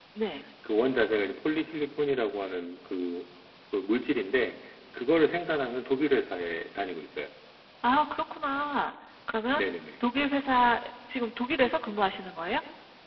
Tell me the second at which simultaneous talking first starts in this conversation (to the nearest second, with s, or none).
none